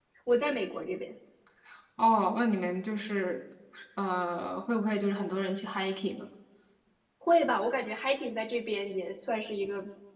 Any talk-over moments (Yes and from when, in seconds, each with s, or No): No